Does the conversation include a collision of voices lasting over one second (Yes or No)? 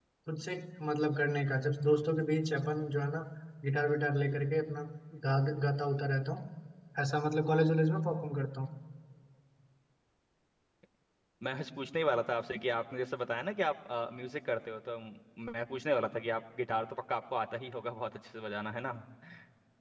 No